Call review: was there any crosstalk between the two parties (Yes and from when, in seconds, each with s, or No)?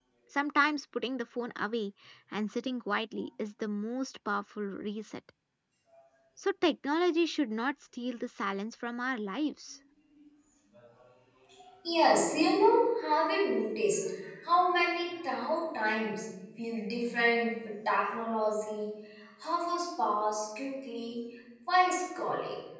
No